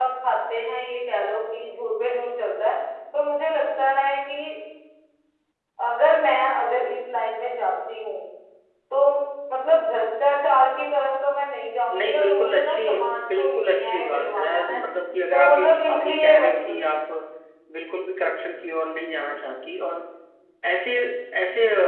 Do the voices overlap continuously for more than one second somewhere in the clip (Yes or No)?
Yes